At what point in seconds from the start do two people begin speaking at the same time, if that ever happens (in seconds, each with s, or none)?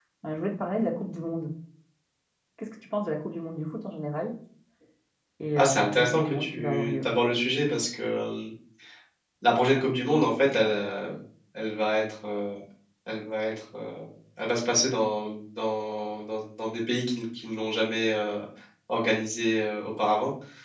5.6 s